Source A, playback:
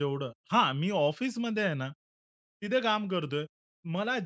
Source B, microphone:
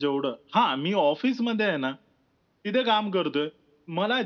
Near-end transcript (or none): none